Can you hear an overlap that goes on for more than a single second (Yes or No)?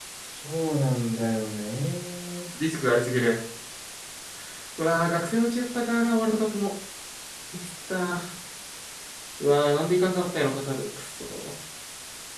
No